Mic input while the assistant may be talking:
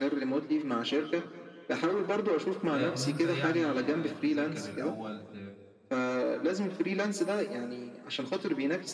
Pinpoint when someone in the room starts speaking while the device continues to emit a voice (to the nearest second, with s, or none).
3 s